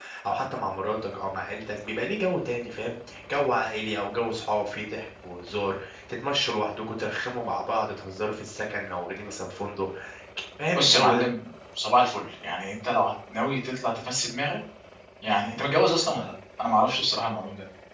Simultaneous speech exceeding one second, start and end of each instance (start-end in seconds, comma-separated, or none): none